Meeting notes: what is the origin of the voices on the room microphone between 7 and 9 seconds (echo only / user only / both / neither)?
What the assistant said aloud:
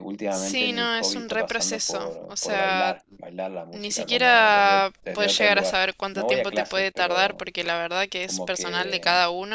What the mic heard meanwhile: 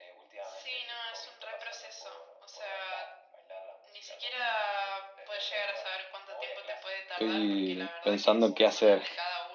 both